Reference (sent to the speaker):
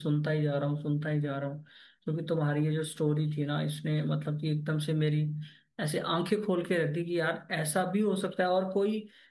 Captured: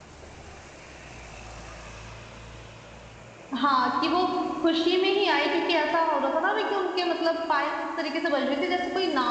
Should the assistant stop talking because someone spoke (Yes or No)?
Yes